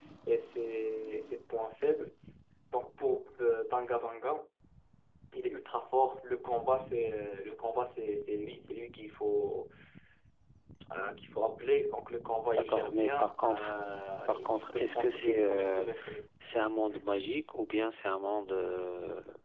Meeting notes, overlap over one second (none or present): present